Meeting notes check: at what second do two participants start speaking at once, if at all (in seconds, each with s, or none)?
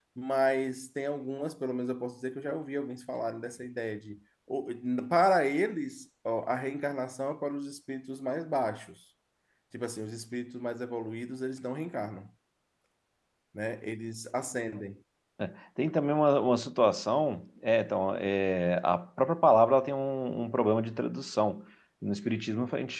none